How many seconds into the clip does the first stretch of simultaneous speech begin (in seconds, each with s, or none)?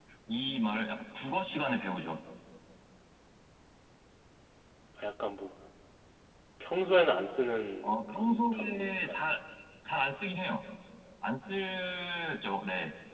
7.8 s